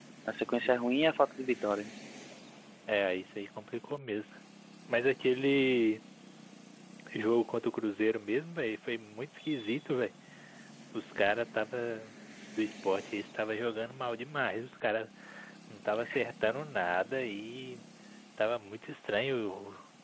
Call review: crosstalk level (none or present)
none